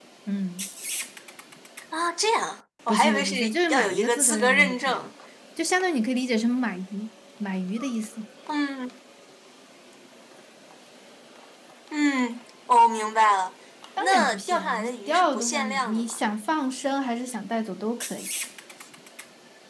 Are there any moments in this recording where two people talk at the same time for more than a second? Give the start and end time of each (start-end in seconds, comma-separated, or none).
2.9-5.1, 14.0-16.0